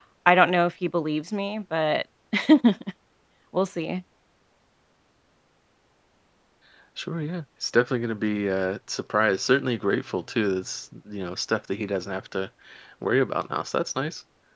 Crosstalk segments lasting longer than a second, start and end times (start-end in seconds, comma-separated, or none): none